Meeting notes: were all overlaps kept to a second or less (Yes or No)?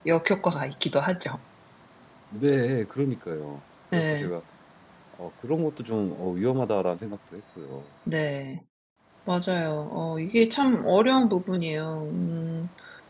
Yes